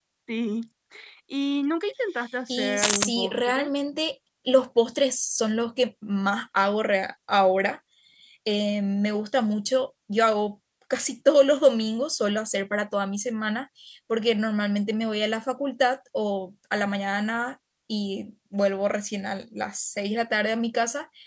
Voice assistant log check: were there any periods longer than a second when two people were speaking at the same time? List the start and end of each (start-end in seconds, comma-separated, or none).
2.5-3.7